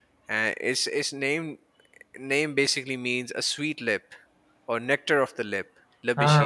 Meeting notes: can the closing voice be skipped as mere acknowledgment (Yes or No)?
No